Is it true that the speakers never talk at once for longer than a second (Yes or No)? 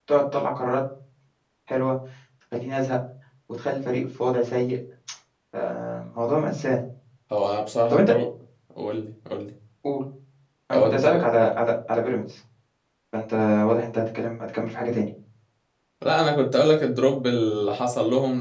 Yes